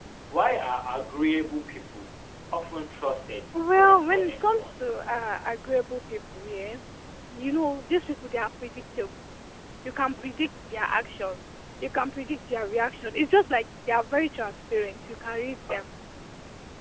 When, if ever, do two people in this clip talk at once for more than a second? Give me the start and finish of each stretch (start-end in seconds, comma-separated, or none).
3.5-4.8